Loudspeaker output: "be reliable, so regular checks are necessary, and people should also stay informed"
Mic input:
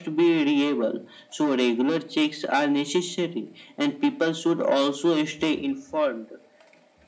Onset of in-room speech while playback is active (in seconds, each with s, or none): none